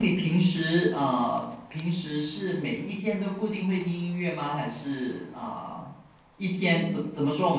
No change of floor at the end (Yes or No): Yes